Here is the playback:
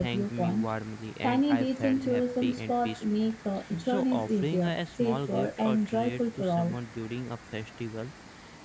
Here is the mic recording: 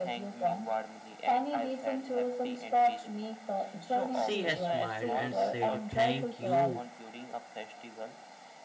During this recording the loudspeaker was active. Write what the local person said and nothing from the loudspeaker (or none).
She smiled and said, Thank you.